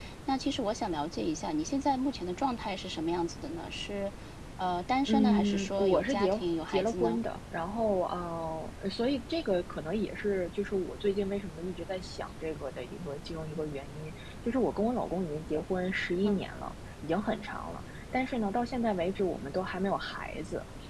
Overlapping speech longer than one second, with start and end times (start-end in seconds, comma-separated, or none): 5.1-7.2